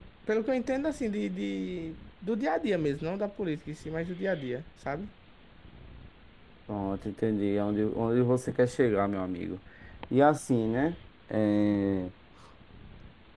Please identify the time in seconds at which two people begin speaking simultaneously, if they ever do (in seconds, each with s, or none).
none